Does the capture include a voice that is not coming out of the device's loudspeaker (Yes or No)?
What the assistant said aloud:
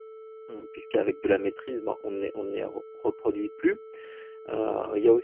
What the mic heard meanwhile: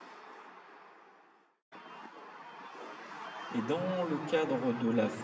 Yes